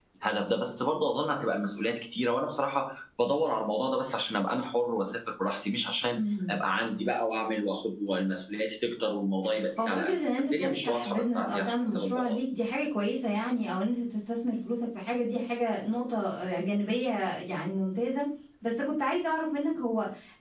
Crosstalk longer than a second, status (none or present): present